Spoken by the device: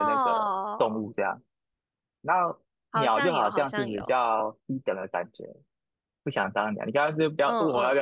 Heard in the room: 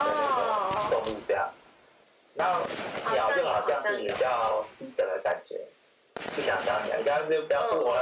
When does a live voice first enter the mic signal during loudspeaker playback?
none

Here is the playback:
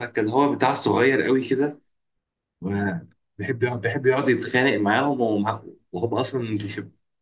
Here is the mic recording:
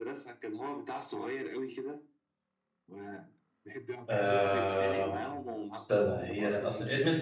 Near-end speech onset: 4.1 s

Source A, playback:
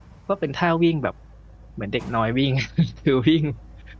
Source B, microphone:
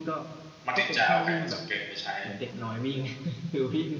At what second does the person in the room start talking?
0.7 s

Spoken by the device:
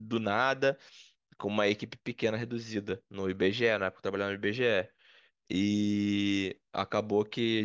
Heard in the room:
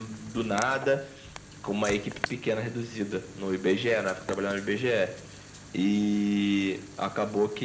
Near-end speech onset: none

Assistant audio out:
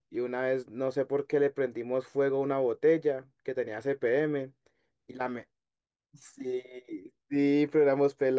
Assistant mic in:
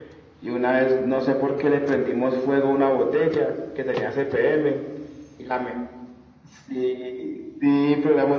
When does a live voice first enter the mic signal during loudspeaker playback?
none

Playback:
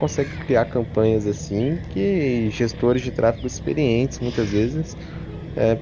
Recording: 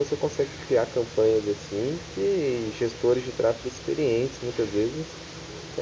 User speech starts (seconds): none

